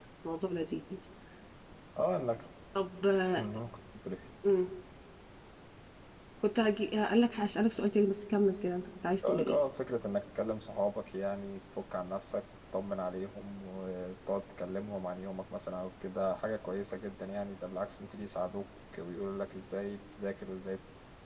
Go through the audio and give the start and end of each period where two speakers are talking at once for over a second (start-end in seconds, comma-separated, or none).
none